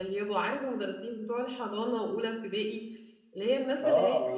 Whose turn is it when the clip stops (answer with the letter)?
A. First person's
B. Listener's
B